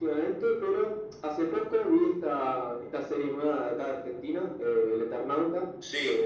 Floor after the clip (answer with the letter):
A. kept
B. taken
A